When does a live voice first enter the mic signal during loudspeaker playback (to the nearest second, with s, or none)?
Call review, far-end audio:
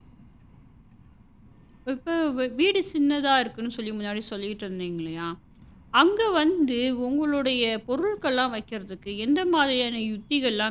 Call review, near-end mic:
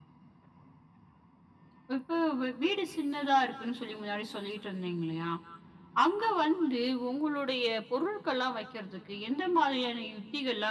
none